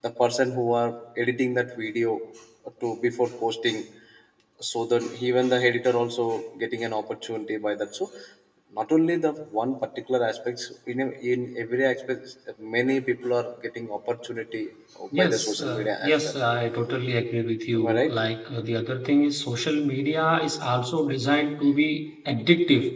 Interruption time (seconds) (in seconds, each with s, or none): 15.2 s